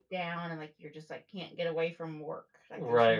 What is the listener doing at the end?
taking over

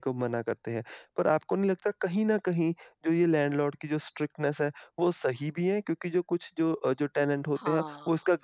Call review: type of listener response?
listening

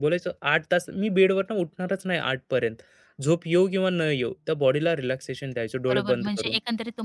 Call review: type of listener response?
taking over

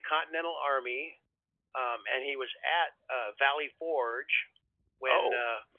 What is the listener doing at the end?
listening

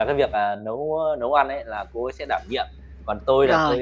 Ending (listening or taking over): listening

